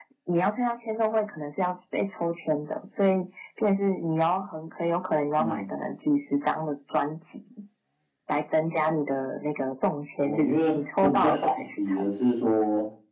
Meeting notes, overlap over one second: present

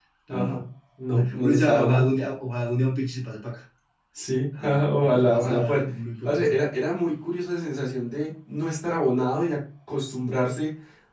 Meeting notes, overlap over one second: present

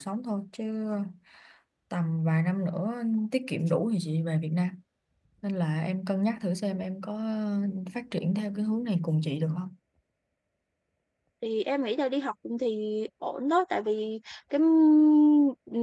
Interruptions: none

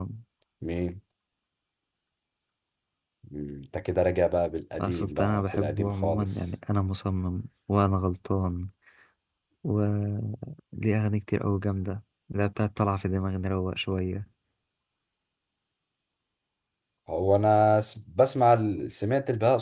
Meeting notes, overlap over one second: present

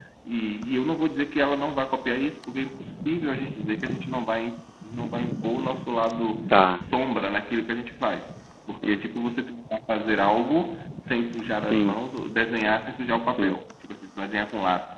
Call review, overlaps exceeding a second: none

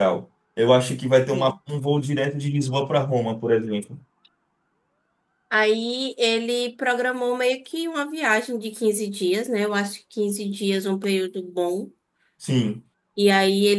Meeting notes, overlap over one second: none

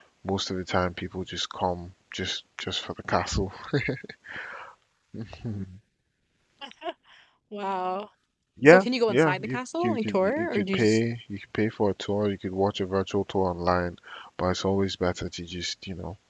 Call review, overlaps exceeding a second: present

